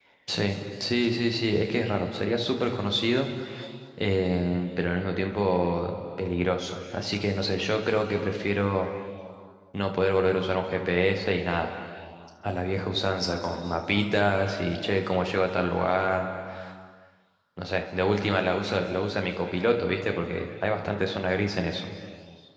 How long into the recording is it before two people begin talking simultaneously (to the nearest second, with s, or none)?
none